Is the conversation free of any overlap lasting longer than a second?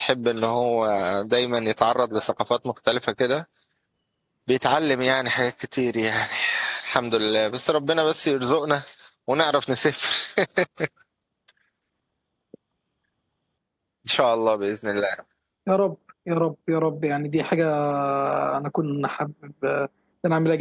Yes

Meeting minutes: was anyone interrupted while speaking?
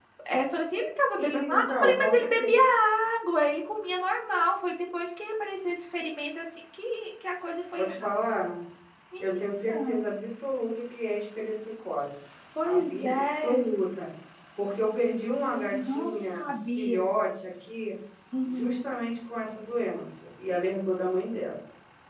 Yes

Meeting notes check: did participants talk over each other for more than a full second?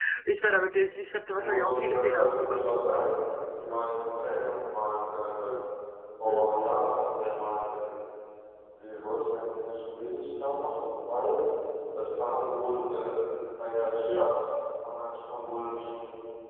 Yes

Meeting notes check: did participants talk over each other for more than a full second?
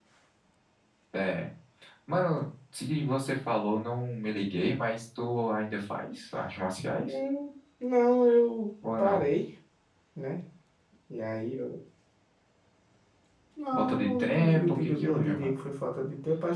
Yes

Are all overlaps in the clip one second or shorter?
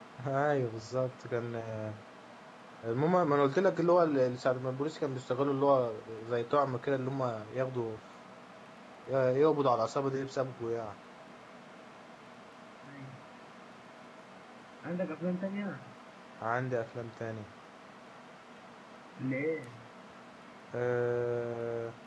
Yes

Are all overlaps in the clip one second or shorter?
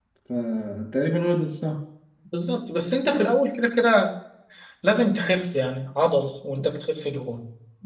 Yes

